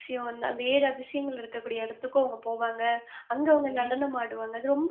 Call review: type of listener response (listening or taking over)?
listening